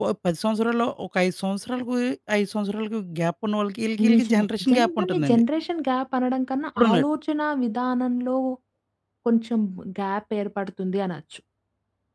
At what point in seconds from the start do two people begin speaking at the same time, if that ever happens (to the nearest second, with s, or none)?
4 s